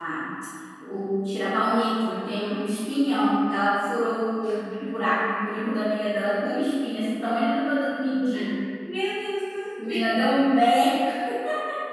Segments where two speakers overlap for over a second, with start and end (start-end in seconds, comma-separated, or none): none